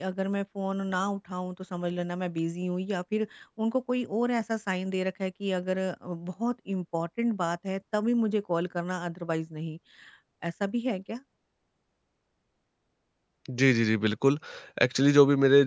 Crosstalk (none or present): none